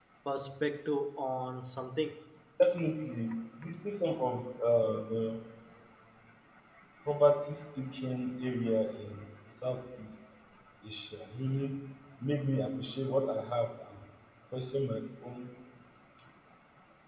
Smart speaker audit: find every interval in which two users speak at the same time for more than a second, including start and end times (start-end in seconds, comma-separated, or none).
none